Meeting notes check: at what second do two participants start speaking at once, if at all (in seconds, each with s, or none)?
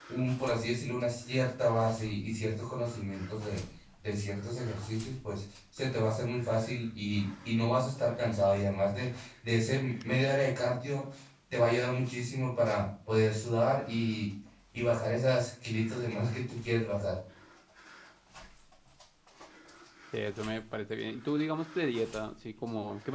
none